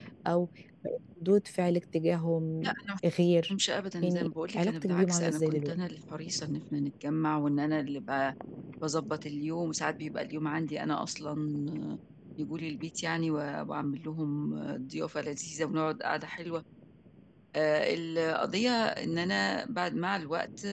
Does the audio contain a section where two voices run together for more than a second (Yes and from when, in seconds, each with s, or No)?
Yes, from 4.0 s